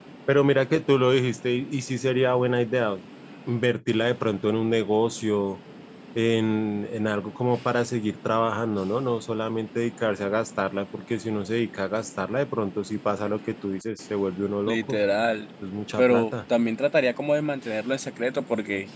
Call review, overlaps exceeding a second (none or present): none